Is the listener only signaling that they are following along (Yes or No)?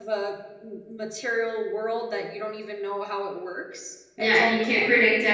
No